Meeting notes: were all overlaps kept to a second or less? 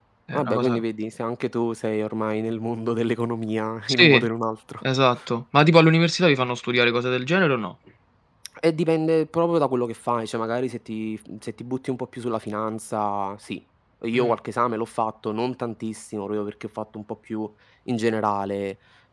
Yes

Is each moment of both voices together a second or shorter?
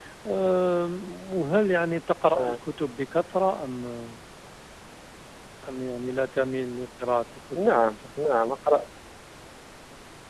Yes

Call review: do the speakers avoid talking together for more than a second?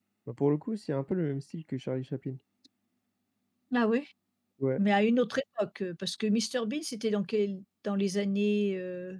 Yes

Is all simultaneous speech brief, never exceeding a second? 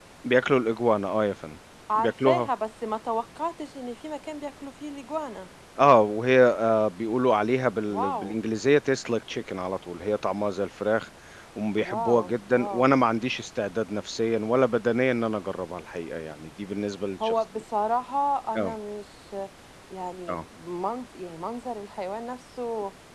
Yes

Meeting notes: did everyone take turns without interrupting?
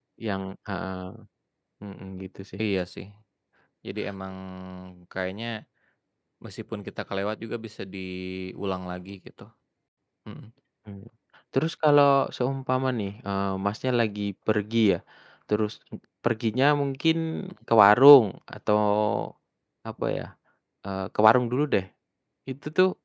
Yes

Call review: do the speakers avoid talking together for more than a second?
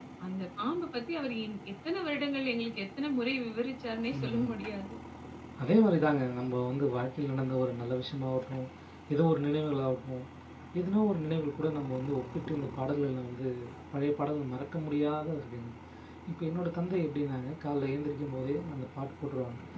Yes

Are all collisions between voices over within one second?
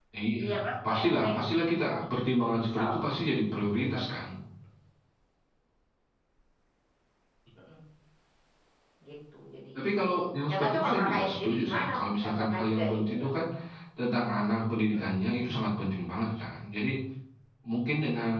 No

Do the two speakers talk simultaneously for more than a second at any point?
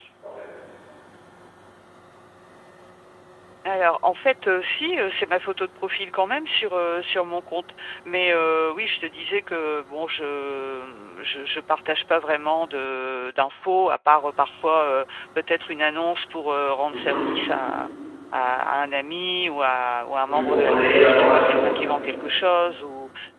Yes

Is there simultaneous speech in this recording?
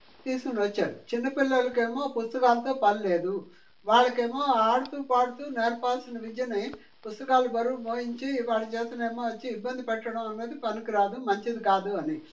No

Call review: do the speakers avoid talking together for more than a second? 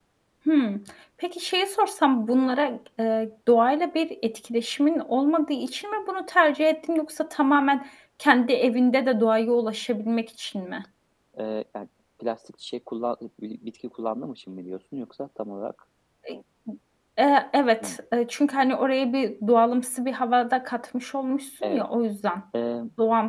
Yes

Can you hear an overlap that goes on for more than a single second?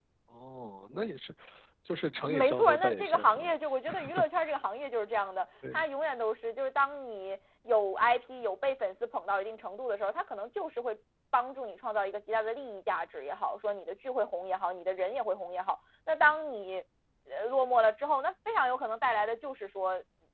Yes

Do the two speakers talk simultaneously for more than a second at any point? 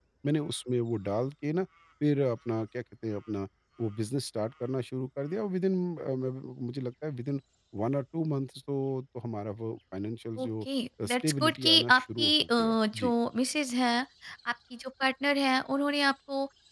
Yes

